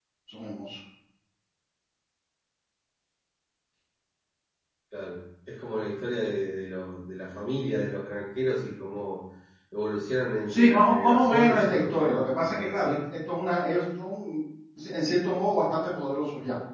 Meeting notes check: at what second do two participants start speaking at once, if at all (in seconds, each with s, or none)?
10.5 s